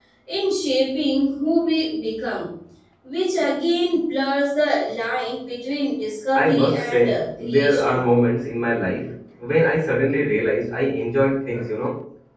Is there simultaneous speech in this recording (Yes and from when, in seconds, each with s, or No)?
Yes, from 6.3 s